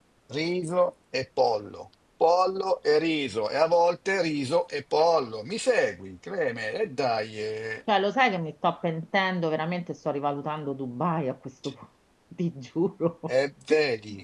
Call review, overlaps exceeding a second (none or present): none